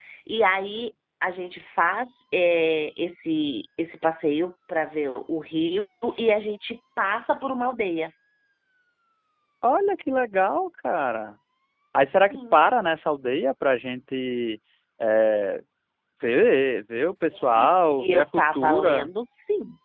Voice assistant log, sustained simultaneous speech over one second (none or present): present